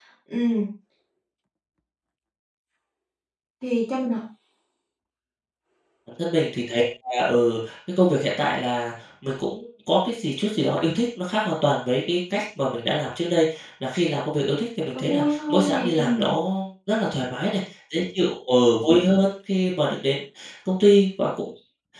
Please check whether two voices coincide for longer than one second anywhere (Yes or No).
Yes